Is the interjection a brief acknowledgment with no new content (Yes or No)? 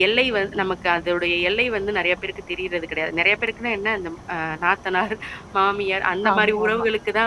Yes